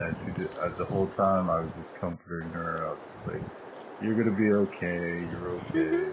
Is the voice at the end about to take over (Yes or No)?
No